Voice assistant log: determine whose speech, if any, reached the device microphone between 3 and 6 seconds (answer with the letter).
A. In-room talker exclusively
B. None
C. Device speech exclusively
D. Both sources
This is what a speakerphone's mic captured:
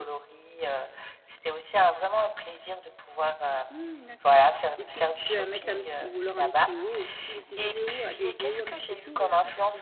D